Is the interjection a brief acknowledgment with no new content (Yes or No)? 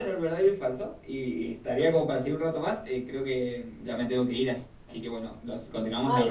No